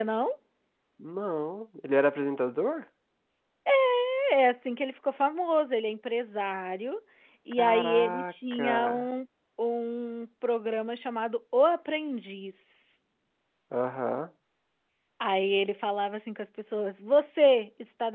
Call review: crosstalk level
present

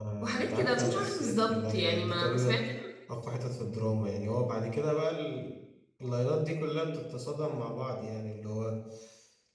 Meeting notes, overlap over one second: present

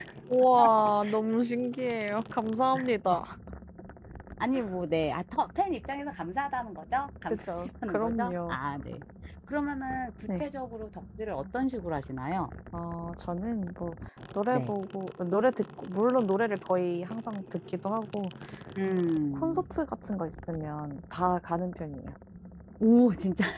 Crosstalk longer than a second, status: present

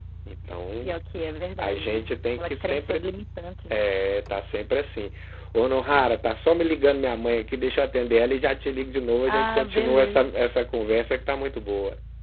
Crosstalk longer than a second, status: present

